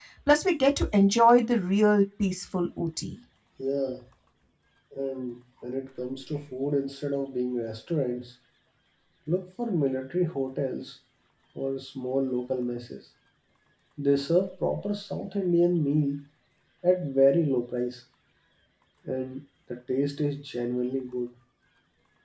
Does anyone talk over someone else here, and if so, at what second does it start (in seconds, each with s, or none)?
none